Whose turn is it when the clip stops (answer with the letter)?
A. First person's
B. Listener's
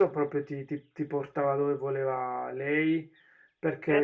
A